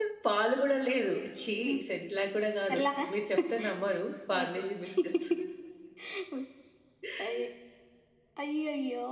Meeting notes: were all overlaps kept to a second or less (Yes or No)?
Yes